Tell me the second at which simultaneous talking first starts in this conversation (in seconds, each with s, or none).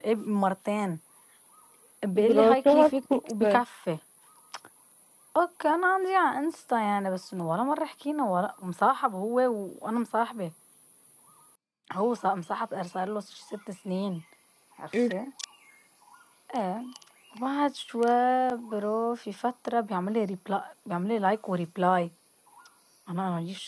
2.2 s